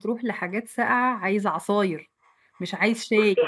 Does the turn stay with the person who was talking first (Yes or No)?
No